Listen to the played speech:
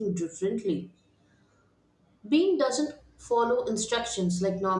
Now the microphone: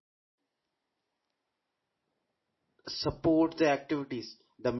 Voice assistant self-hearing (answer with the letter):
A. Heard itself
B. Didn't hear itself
B